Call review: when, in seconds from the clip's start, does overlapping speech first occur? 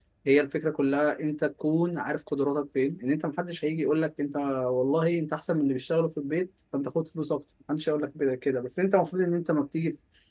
none

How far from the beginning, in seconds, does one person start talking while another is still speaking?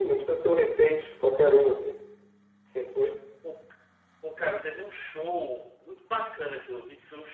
none

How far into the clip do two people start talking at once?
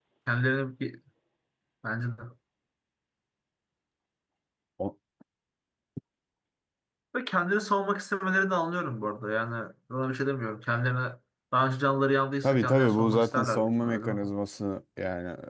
12.4 s

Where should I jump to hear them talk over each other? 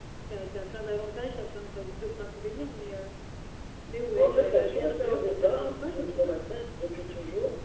4.2 s

